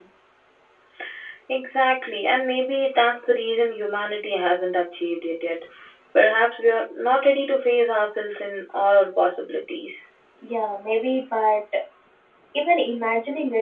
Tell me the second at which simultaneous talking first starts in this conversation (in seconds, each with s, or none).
none